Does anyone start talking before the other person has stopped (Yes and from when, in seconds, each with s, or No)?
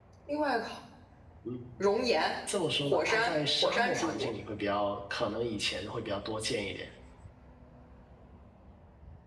Yes, from 2.8 s